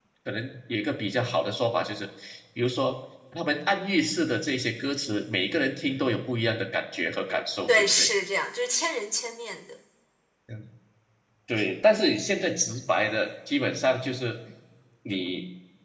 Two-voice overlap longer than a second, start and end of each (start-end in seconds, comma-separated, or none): none